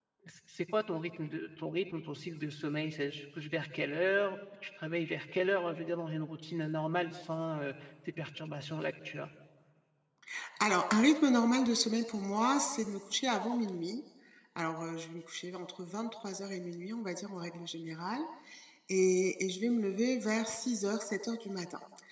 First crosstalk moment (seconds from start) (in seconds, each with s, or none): none